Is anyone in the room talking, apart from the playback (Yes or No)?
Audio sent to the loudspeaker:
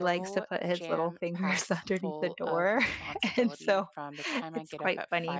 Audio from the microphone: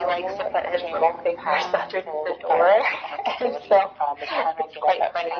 Yes